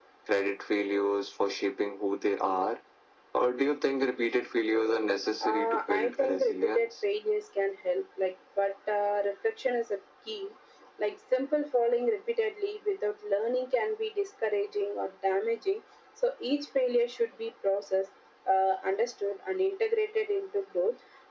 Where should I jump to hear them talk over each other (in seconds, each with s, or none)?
5.4 s